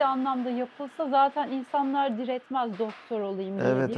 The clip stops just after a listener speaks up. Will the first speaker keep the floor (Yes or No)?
No